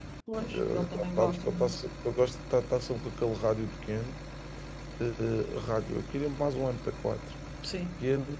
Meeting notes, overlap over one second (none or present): present